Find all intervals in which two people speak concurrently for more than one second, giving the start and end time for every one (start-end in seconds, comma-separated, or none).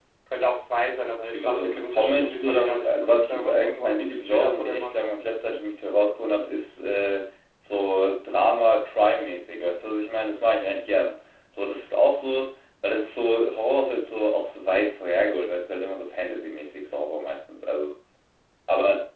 1.3-5.0